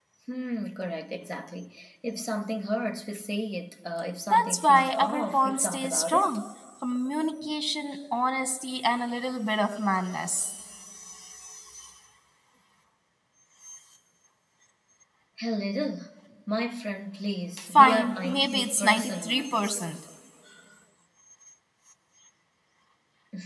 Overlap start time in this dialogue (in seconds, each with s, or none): 4.3 s